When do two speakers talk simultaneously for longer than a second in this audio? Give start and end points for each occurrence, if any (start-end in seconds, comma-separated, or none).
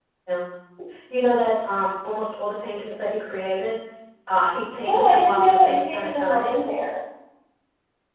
4.8-6.5